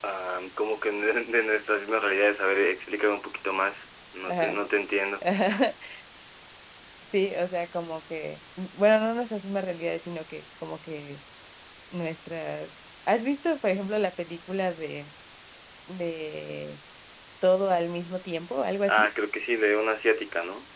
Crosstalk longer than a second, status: none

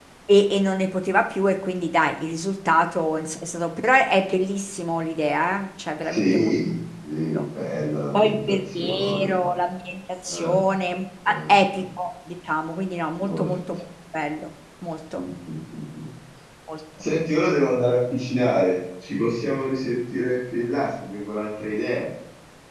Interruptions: present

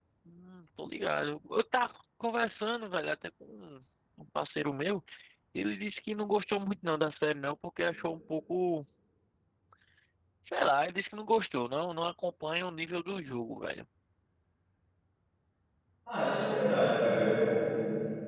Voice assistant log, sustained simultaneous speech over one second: none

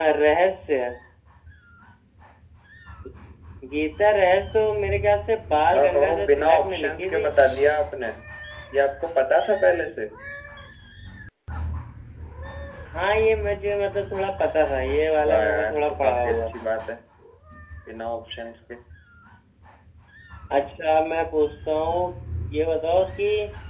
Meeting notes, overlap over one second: present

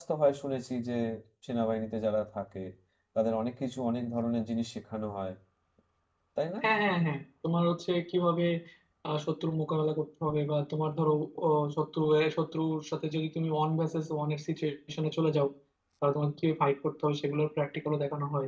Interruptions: none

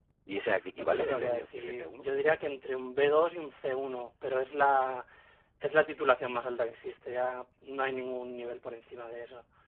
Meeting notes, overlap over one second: present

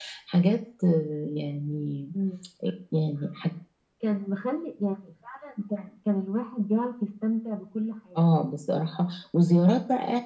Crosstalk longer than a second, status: none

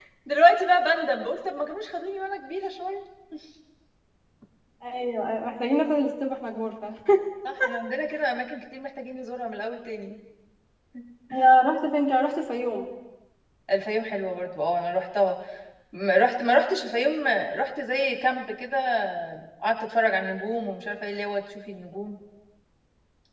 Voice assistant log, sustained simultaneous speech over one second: none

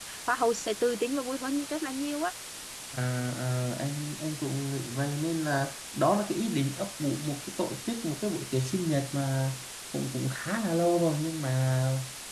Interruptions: none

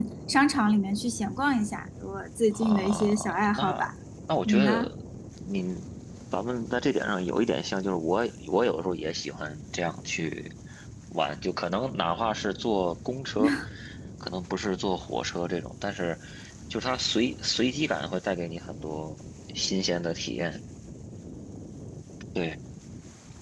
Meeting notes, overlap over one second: present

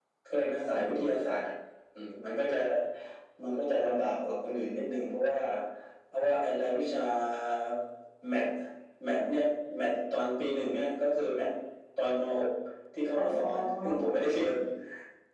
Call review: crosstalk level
present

